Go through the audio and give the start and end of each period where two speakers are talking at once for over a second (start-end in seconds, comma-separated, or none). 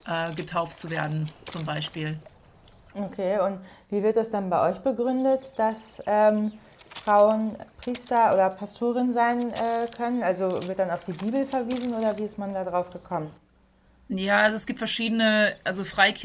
none